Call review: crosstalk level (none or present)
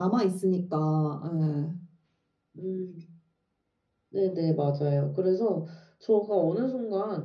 none